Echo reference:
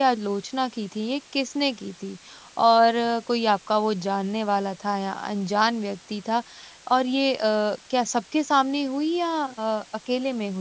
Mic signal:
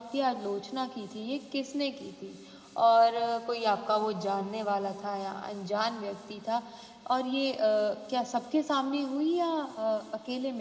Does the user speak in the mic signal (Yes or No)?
No